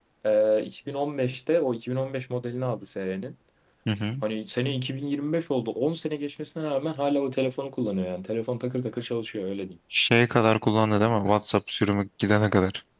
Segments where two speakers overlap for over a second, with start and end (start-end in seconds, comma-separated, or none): none